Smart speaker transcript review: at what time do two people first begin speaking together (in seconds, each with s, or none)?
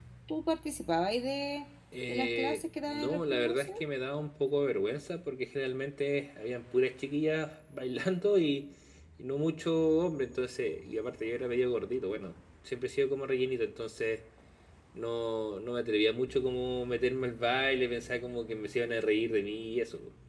2.1 s